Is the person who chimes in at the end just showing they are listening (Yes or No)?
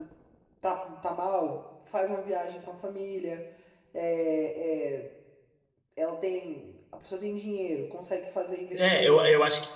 No